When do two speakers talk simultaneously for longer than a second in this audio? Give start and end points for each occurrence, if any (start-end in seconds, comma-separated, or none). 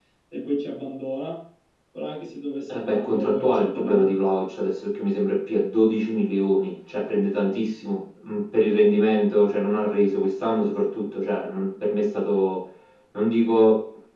2.7-4.1